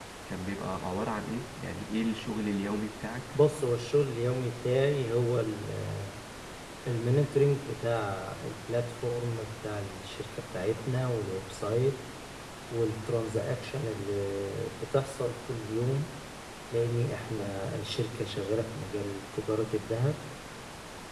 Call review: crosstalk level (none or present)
none